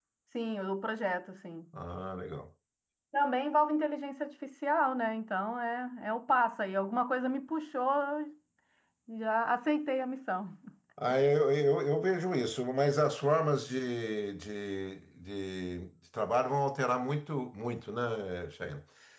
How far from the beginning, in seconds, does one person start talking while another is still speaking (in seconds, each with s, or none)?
none